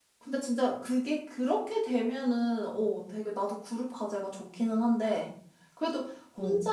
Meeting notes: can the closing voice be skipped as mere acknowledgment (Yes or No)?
Yes